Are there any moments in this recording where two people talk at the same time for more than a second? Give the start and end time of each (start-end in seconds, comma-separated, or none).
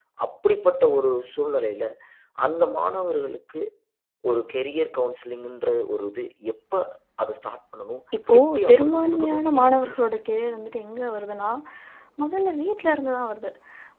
8.4-10.2